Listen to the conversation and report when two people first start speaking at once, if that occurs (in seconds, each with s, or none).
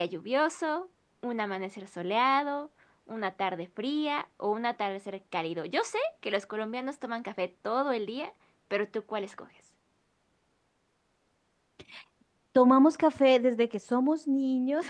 none